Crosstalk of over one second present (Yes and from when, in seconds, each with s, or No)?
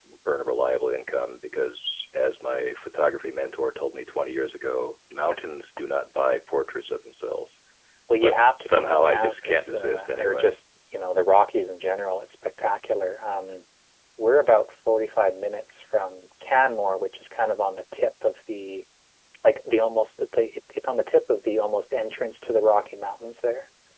Yes, from 8.2 s